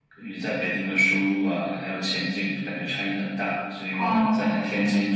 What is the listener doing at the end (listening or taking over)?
listening